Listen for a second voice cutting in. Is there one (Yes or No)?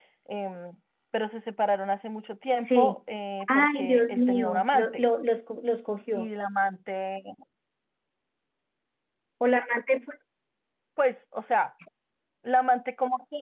Yes